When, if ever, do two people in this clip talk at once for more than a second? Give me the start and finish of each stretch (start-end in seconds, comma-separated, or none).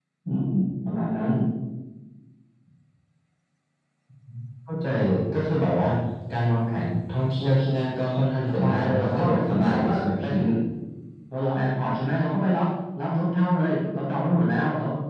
8.5-10.3